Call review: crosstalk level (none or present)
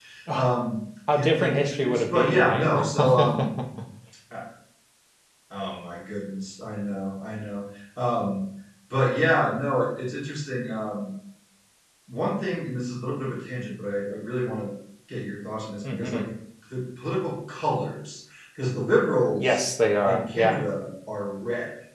present